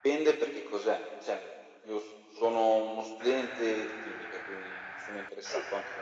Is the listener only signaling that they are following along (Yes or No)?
Yes